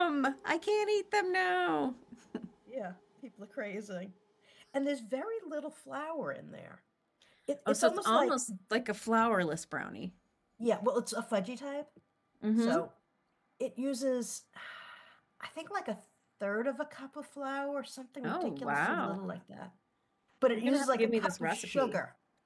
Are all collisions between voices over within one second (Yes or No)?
No